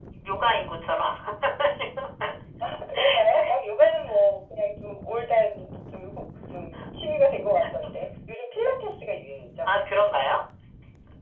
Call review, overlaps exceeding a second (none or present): none